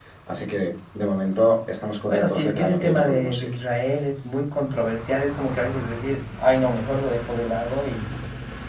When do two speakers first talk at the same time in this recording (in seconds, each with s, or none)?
2.1 s